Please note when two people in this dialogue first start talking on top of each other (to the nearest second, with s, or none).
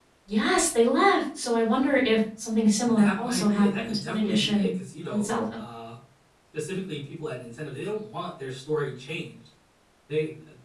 3 s